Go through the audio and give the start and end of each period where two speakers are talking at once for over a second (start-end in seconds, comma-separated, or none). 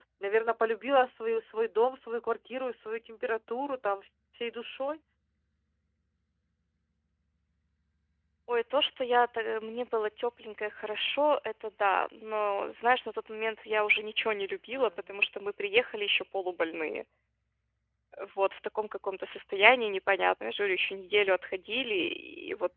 none